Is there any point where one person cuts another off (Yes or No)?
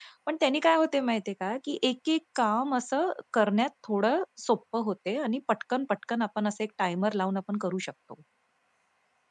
No